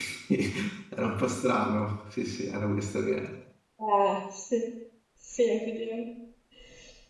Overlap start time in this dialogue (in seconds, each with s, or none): none